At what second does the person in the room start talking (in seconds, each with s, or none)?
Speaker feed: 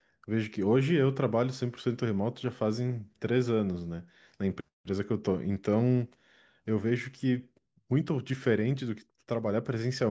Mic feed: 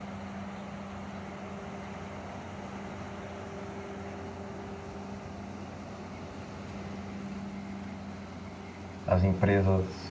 9.1 s